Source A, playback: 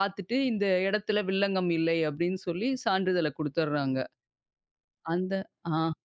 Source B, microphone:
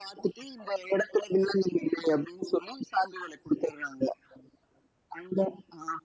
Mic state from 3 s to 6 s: echo only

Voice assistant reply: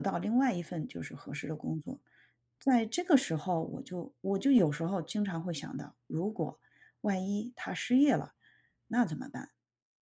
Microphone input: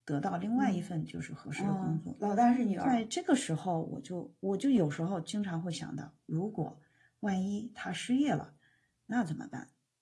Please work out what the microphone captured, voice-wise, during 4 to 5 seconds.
echo only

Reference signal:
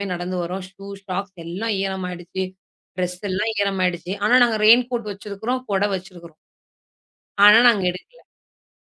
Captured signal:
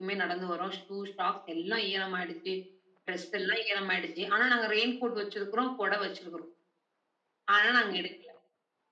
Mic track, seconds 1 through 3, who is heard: echo only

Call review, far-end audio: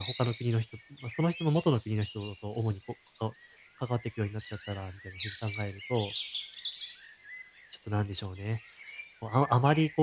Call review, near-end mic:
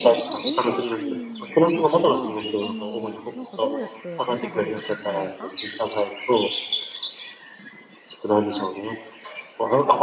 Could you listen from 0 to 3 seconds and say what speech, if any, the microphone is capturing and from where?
both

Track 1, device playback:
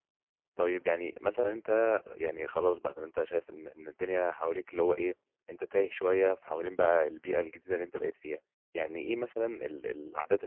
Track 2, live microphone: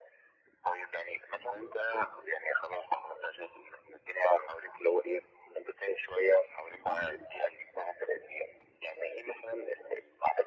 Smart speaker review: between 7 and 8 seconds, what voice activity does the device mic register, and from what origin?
echo only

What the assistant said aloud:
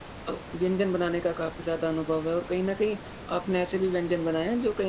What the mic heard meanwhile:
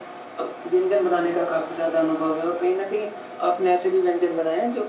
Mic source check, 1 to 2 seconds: echo only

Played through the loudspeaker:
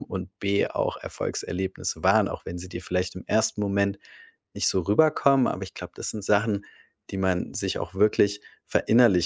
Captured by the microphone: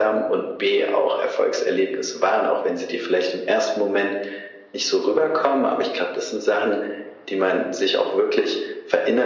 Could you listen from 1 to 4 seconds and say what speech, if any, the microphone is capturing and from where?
echo only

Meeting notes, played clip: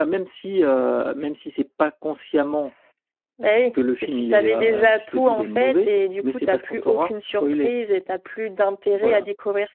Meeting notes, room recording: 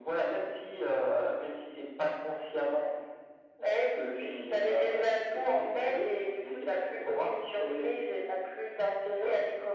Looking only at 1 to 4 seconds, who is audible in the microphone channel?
echo only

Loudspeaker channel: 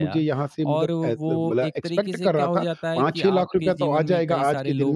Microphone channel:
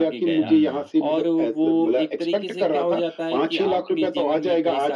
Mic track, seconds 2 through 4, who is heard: echo only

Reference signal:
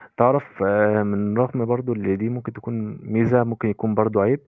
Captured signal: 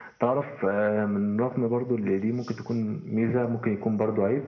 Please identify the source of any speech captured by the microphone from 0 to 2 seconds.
echo only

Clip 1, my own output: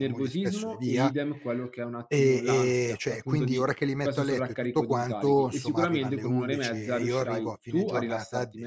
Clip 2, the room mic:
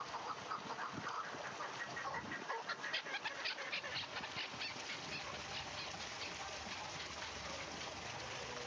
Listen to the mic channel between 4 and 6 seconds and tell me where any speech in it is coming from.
neither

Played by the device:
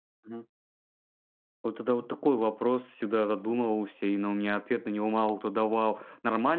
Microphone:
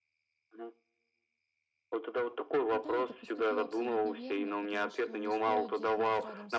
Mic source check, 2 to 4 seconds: both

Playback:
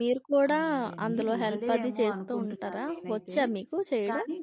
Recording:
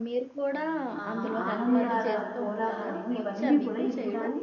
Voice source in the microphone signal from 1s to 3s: both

